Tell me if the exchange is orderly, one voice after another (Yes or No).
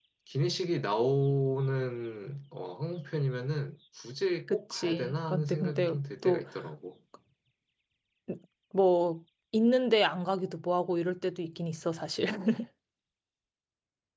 No